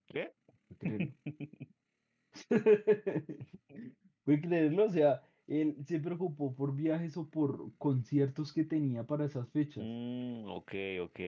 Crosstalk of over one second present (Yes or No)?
No